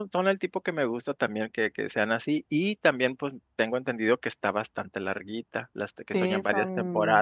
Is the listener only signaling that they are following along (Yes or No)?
No